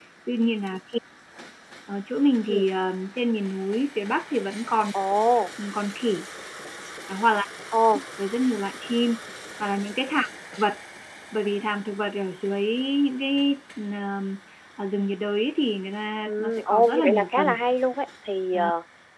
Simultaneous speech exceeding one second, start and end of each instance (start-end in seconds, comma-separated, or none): 16.3-17.6